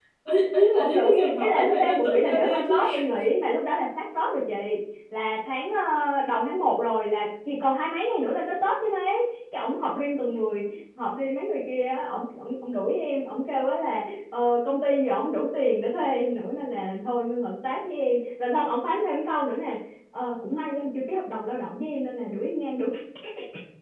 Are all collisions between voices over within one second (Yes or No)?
No